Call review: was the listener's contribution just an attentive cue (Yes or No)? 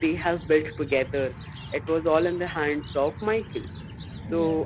Yes